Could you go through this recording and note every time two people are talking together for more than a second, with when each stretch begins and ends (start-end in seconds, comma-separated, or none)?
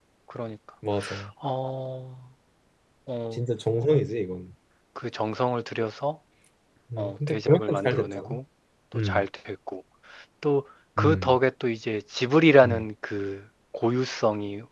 7.0-8.4